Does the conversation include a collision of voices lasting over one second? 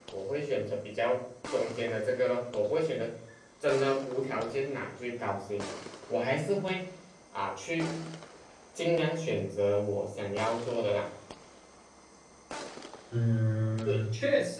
No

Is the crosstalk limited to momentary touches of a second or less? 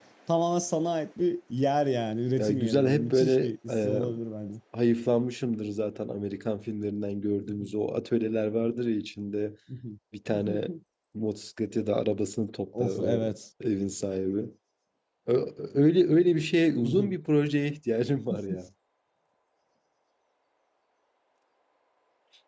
No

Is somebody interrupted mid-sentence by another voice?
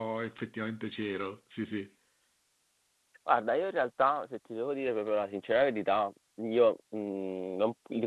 No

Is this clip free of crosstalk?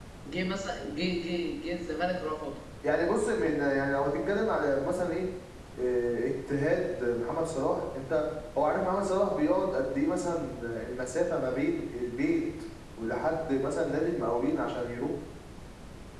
Yes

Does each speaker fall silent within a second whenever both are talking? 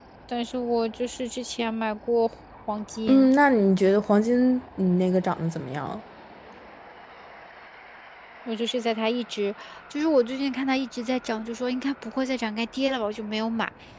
Yes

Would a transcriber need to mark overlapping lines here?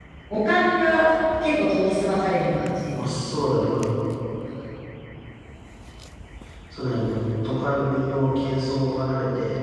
No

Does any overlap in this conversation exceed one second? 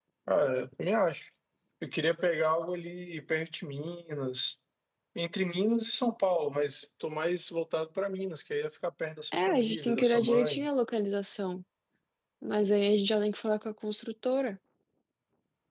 Yes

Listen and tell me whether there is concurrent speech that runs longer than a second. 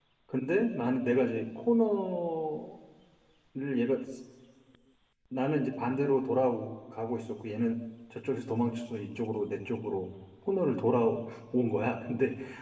No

